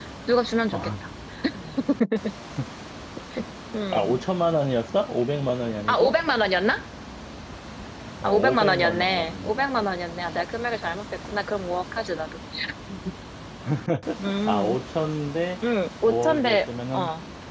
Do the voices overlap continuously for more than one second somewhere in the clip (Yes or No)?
Yes